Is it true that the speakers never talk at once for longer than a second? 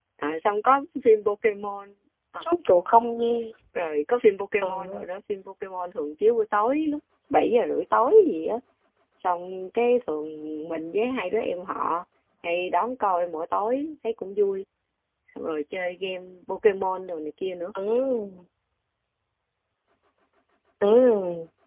Yes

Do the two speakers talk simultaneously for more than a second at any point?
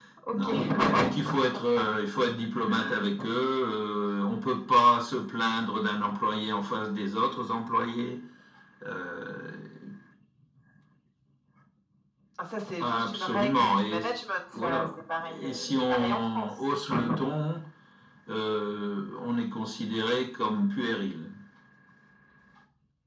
Yes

